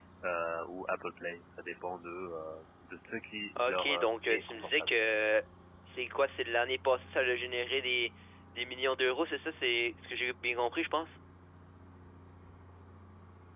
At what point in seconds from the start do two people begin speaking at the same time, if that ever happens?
3.5 s

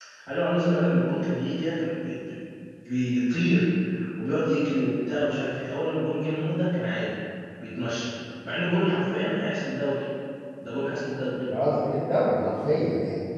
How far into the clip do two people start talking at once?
none

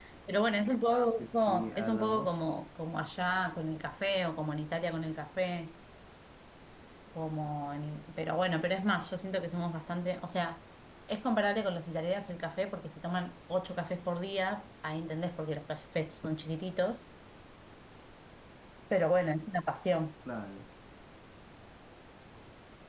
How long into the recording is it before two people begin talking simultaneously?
1.2 s

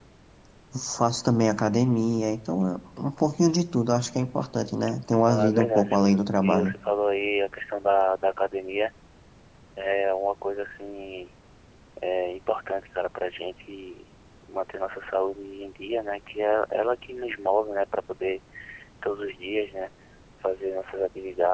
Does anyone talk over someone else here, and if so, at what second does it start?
5.3 s

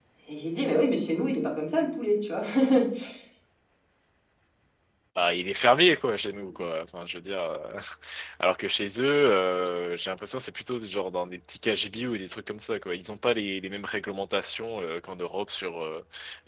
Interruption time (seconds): none

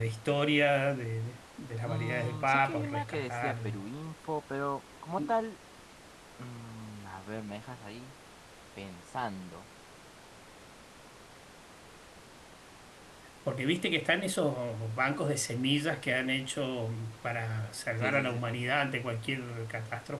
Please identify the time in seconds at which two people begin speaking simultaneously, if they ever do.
1.8 s

